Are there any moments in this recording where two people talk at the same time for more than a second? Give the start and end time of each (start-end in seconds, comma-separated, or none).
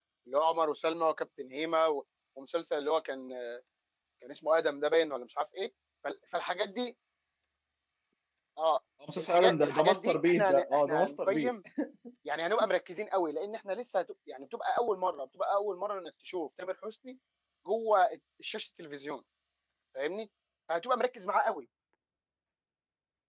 9.2-11.5